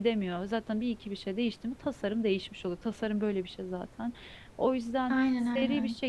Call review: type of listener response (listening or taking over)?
listening